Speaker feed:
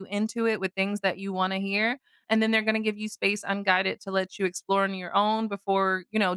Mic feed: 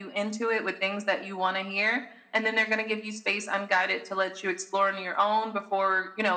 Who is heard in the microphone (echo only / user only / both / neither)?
echo only